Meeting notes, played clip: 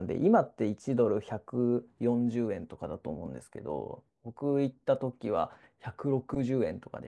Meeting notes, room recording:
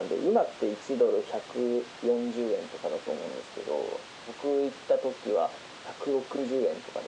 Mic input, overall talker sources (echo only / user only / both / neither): echo only